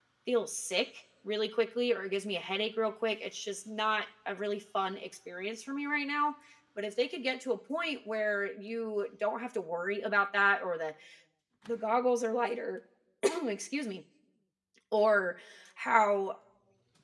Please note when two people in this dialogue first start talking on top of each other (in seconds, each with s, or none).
none